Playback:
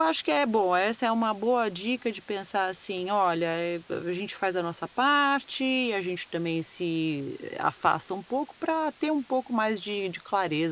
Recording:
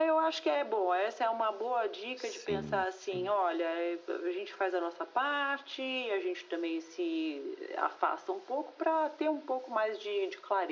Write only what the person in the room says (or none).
Sim, sim.